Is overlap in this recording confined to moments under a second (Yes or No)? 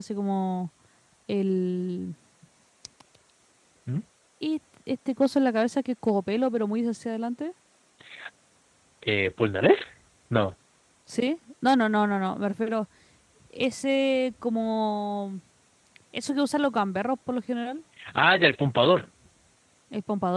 Yes